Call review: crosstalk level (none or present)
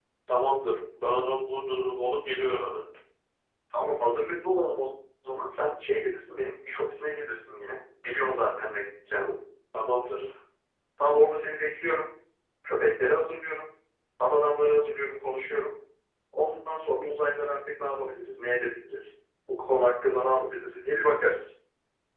none